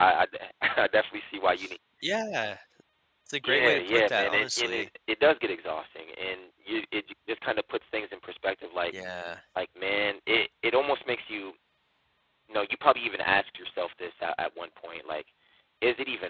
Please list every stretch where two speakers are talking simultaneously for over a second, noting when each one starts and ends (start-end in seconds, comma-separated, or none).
3.4-4.9